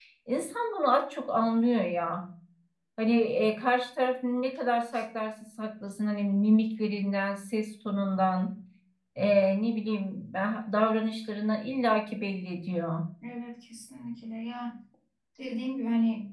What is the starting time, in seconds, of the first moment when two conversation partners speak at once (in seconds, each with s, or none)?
none